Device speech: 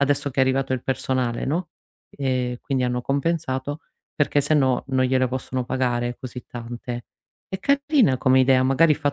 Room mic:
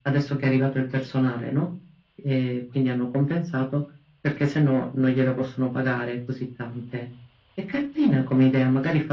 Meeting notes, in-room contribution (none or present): none